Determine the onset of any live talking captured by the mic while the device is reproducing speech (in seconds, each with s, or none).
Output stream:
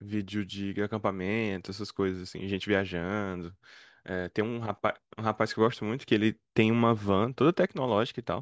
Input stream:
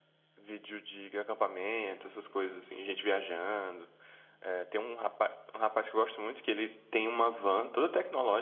none